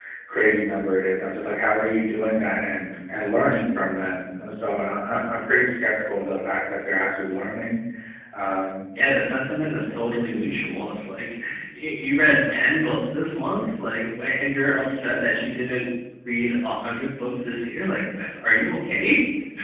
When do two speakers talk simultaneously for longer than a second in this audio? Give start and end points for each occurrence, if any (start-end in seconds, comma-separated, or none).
none